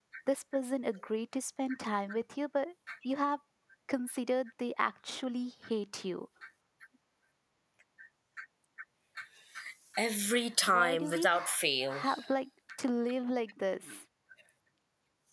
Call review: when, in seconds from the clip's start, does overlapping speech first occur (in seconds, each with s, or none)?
10.7 s